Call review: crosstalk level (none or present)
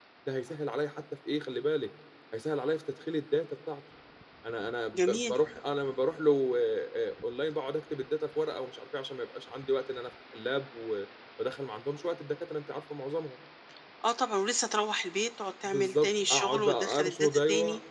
present